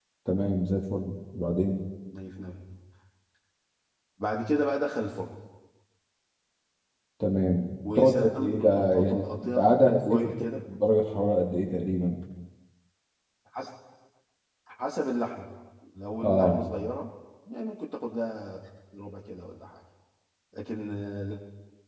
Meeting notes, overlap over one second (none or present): present